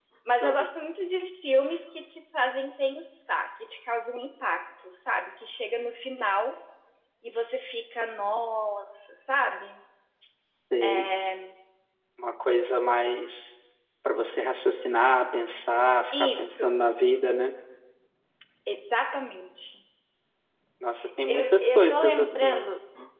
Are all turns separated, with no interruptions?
No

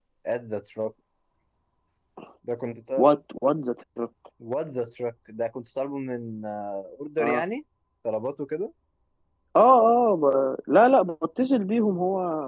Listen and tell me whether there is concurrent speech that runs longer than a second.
No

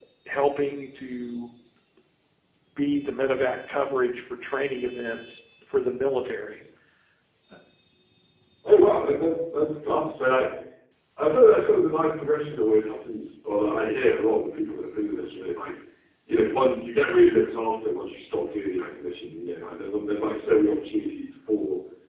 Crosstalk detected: No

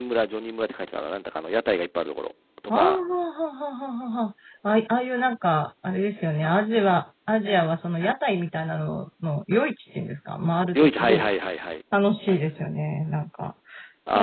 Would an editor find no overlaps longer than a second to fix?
Yes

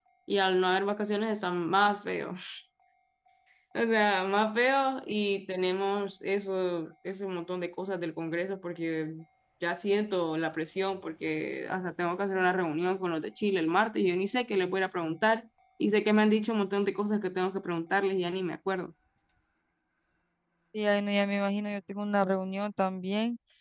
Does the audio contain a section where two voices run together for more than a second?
No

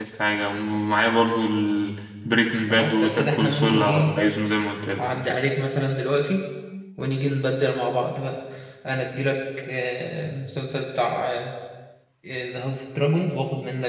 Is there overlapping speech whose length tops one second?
Yes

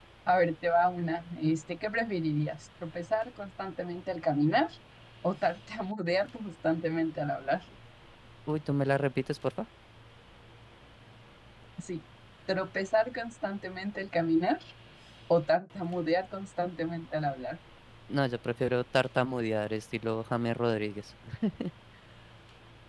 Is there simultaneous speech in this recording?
No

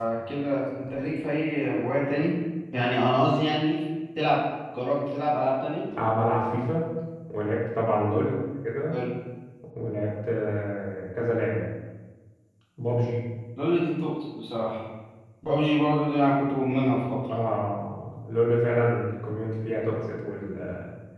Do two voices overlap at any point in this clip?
No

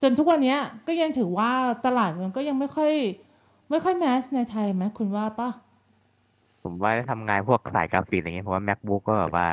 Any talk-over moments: No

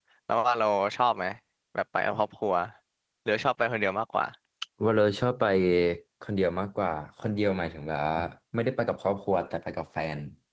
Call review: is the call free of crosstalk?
Yes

